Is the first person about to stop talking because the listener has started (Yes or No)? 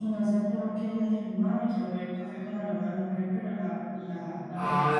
Yes